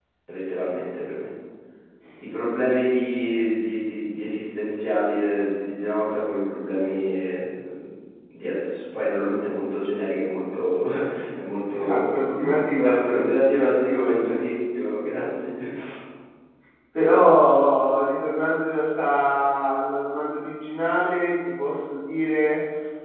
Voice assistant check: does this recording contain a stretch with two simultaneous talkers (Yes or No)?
Yes